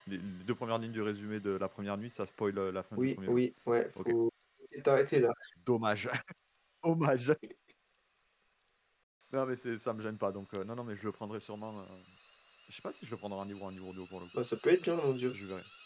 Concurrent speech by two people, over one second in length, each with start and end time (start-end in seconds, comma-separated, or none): none